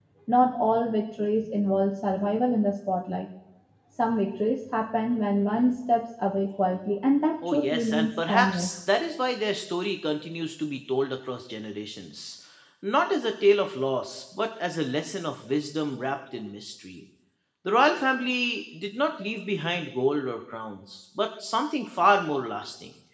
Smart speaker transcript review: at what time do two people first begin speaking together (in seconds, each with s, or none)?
7.4 s